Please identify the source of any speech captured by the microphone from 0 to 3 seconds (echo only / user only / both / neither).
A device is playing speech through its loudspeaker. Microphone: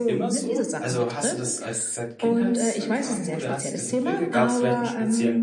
both